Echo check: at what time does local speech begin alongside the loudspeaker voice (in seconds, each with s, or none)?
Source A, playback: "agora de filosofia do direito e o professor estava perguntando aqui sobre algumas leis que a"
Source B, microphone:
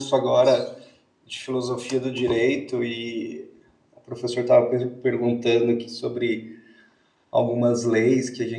none